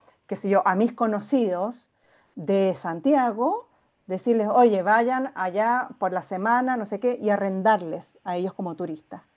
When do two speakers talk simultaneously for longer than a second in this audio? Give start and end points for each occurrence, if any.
none

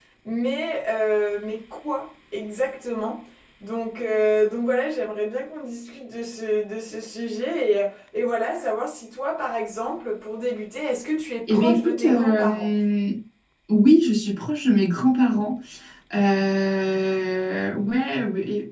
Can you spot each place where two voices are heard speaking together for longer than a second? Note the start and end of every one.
11.5-12.7

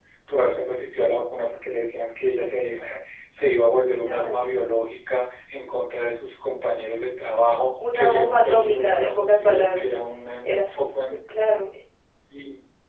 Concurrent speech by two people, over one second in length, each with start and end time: 7.9-9.8

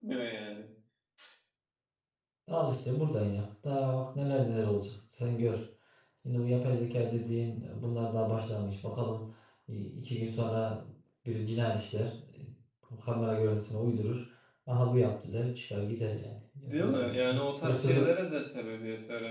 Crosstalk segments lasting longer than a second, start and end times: 16.6-18.1

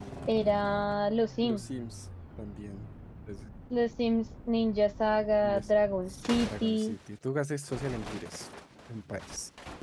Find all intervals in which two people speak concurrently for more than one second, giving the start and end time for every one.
none

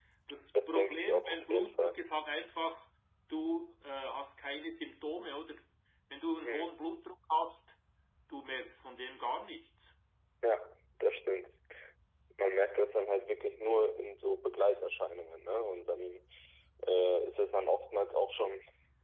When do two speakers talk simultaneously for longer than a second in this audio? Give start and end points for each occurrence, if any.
0.7-1.9

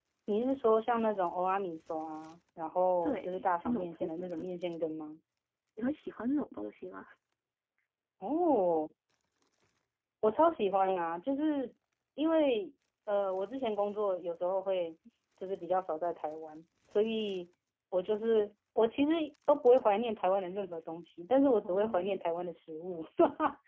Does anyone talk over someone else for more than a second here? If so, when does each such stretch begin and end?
3.0-4.4

